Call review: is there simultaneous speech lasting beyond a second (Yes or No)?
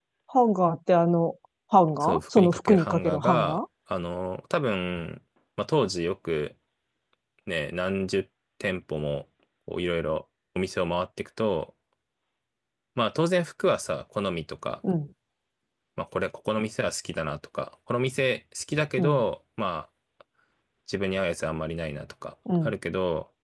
Yes